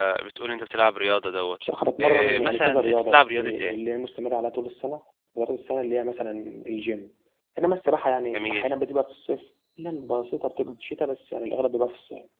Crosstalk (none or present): present